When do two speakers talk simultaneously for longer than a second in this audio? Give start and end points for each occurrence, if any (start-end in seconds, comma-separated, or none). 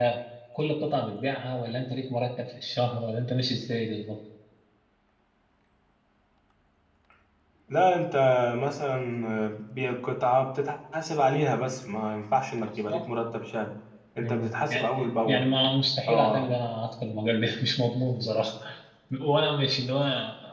14.2-15.5